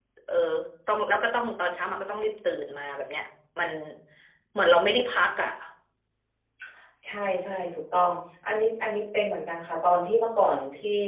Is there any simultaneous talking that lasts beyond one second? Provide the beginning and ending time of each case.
none

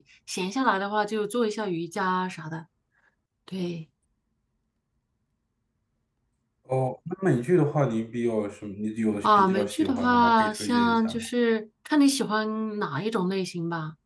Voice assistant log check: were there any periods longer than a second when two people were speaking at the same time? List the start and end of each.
9.2-11.2

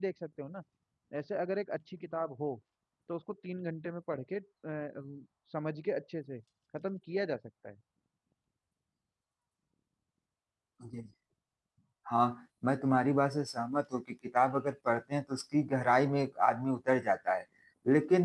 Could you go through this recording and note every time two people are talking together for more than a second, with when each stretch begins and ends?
none

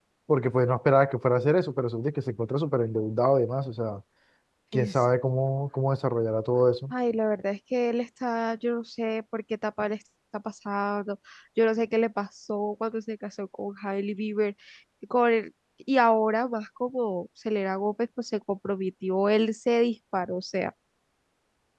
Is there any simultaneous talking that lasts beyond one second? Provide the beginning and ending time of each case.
none

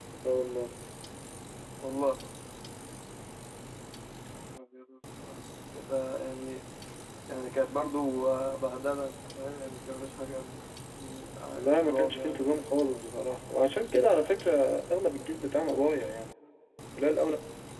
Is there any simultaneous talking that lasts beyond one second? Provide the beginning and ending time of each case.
11.6-12.8

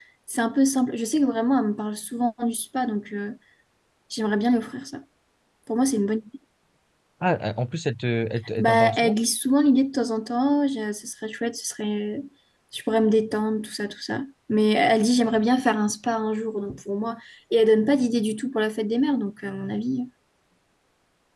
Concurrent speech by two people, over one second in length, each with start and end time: none

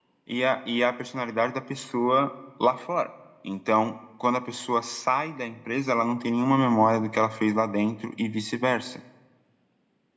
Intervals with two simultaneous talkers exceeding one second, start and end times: none

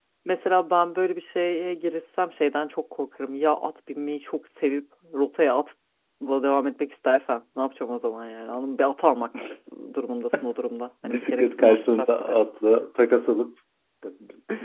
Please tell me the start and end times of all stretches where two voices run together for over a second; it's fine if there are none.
11.0-12.4

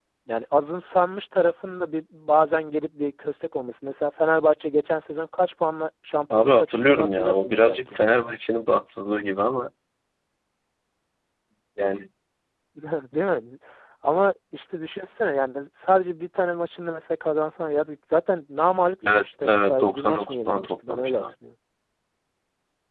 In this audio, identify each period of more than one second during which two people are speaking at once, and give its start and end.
6.3-7.8, 19.2-21.2

